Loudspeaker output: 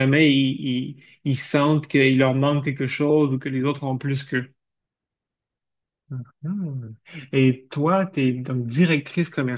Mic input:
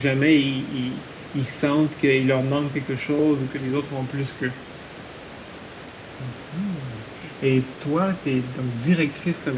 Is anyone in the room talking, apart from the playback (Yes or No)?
No